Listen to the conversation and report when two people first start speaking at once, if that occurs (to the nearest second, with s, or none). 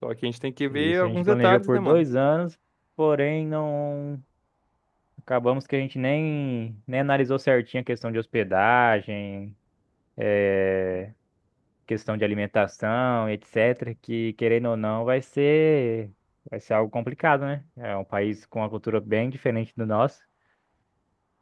1 s